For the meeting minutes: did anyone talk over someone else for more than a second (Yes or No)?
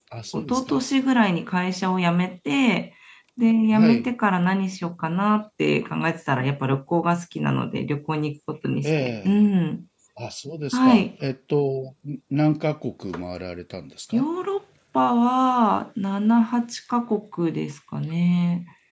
No